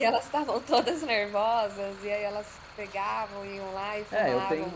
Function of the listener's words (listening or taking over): taking over